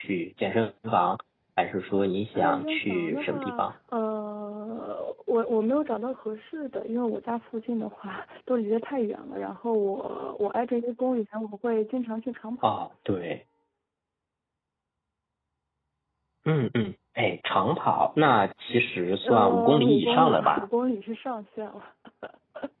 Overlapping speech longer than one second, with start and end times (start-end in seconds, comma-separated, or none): 2.4-3.6, 19.2-20.6